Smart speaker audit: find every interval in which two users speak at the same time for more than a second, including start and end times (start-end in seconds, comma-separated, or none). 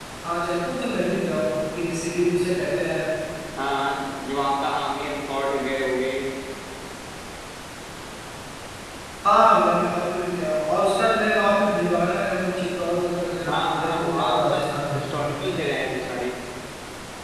13.5-15.0